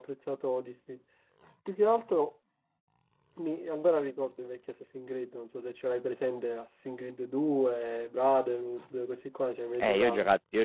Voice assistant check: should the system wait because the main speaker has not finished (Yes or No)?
No